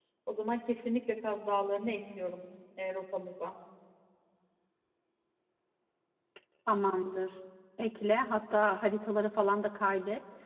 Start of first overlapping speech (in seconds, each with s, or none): none